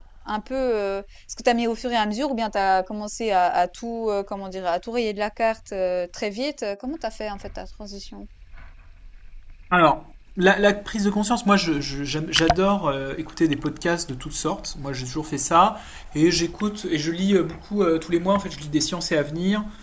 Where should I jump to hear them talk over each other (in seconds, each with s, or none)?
none